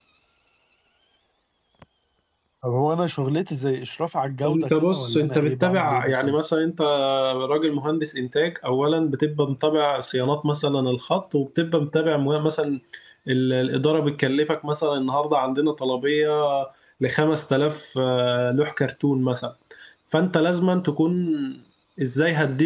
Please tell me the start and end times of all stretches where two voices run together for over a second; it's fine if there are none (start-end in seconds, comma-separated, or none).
4.5-6.4